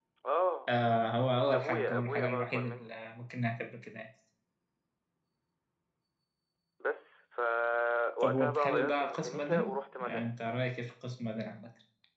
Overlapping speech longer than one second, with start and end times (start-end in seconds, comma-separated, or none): 1.4-3.0, 8.2-10.4